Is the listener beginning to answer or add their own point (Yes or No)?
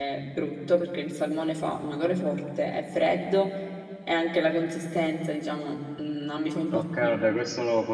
Yes